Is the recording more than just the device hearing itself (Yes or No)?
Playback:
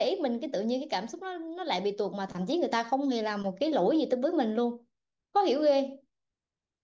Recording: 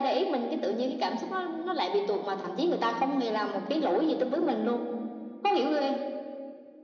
No